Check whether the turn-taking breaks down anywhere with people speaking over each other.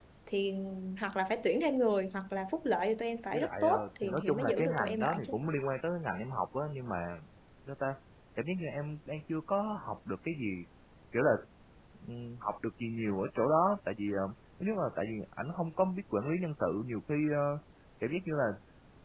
Yes, from 3.3 s

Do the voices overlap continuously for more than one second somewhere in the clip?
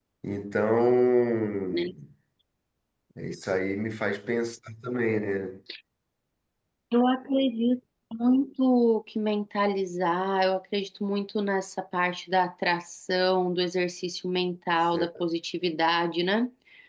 No

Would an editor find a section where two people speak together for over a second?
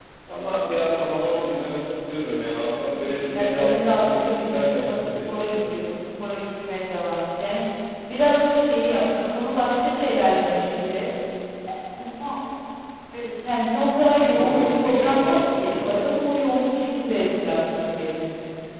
Yes, from 3.4 s

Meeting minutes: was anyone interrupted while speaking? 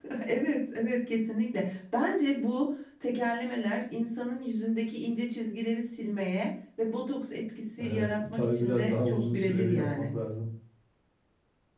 Yes, from 7.7 s

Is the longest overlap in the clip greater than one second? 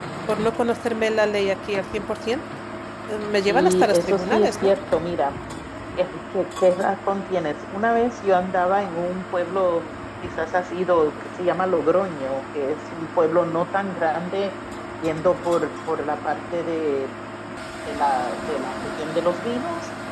Yes, from 3.5 s

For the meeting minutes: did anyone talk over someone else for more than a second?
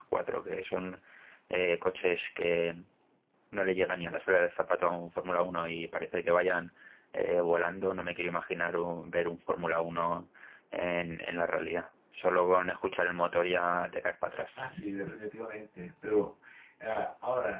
No

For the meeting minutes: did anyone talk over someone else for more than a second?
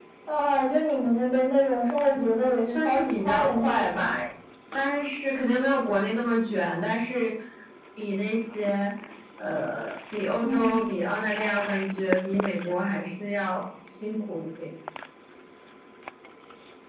Yes, from 2.1 s

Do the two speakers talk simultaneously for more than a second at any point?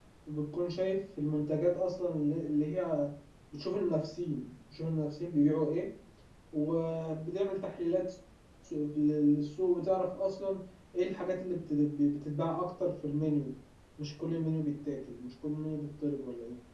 No

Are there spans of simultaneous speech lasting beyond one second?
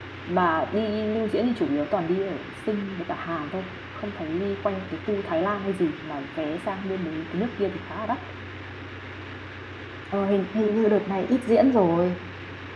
No

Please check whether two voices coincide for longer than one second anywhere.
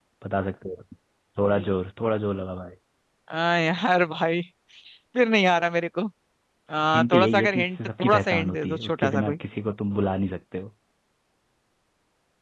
Yes, from 6.9 s

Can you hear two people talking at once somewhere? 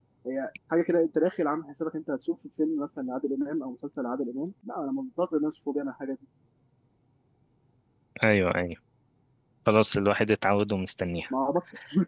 No

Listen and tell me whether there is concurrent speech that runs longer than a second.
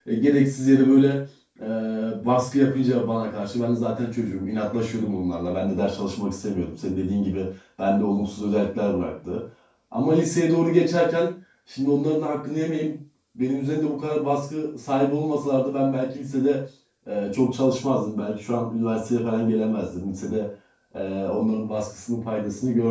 No

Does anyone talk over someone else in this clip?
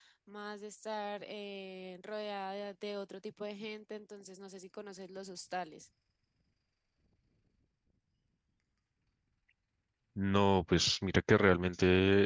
No

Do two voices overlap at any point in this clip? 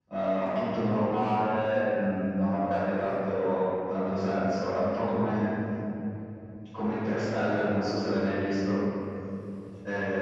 No

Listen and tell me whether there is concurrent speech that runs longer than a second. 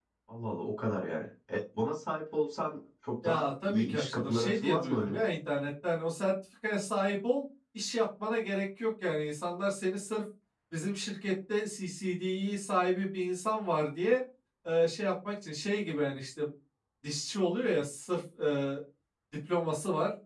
Yes, from 3.2 s

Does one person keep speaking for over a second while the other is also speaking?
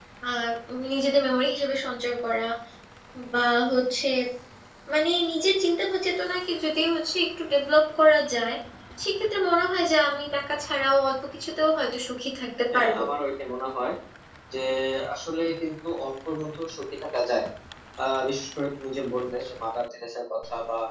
No

